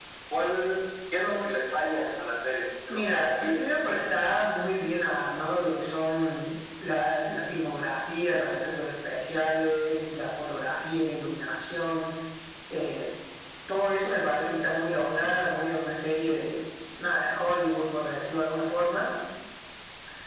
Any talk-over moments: Yes, from 2.9 s

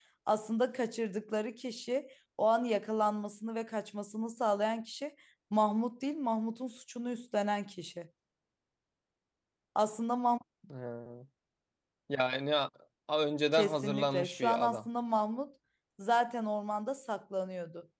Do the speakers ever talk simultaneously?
Yes, from 13.5 s

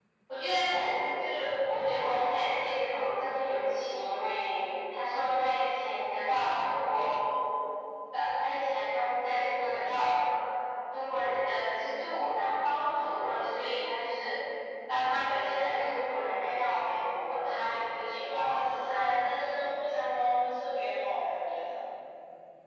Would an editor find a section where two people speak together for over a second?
Yes, from 18.2 s

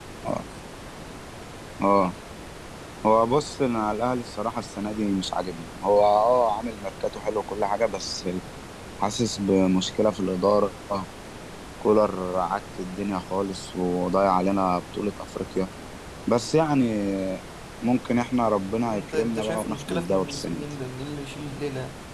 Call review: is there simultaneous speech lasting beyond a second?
Yes, from 18.9 s

